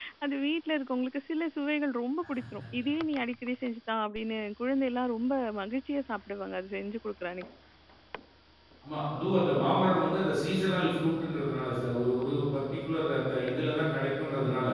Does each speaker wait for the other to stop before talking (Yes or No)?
Yes